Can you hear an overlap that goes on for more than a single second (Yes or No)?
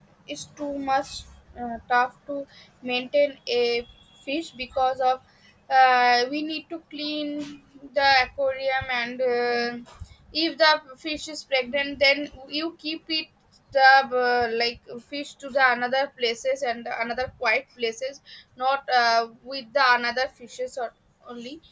No